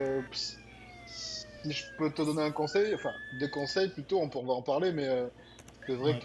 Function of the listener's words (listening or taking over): listening